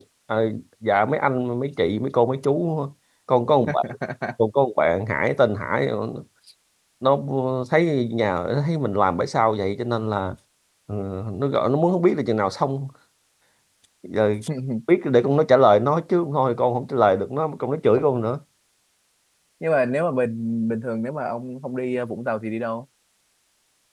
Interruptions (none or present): none